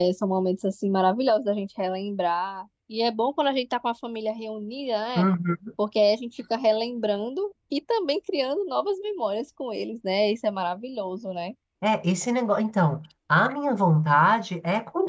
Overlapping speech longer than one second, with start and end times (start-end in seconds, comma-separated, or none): none